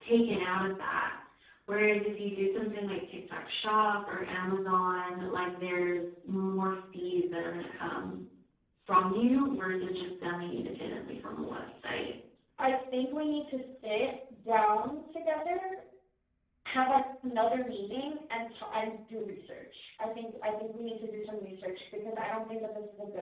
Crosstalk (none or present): none